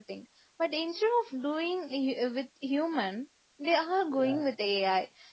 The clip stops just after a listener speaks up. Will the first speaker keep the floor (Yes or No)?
Yes